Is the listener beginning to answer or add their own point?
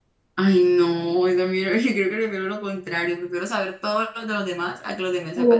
Yes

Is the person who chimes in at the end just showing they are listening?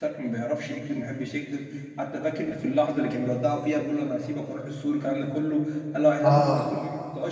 Yes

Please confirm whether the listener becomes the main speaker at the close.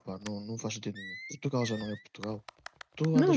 No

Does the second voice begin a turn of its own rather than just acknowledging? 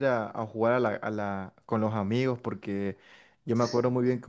No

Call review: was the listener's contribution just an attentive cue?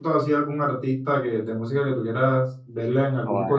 No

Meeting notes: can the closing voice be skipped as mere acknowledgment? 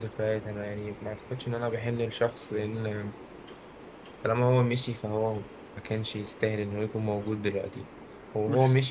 Yes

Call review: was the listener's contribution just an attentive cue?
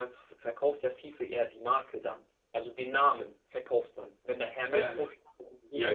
No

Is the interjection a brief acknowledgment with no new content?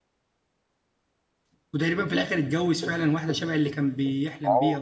No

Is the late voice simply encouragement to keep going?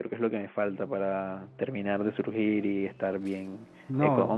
Yes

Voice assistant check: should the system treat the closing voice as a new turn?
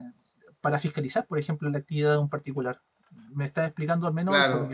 Yes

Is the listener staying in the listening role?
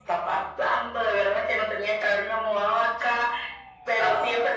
Yes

